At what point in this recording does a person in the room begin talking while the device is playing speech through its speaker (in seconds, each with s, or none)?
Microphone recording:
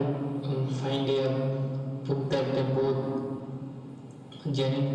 none